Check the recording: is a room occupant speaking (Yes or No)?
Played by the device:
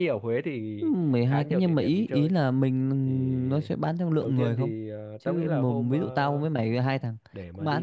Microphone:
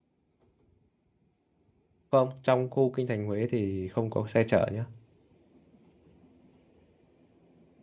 Yes